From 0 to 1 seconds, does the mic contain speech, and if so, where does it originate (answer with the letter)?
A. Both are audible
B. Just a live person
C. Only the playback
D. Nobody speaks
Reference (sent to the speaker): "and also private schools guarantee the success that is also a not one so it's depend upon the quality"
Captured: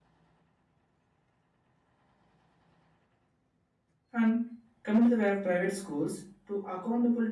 D